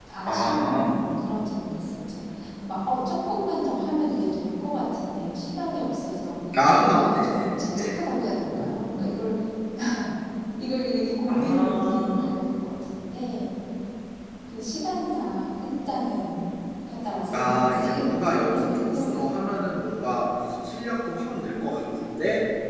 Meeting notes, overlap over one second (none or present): present